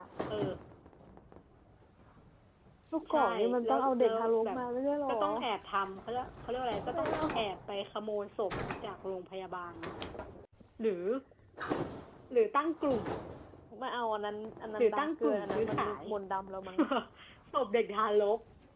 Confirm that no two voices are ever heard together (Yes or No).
No